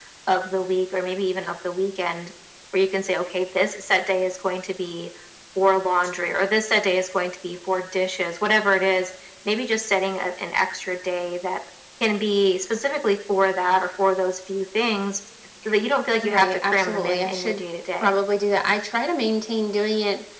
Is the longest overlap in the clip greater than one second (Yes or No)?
Yes